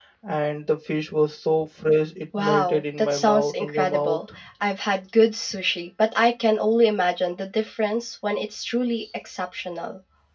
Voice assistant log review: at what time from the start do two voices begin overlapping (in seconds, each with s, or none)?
2.3 s